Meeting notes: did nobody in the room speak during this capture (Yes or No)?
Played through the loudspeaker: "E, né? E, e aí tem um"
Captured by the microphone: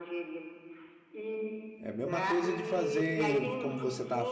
No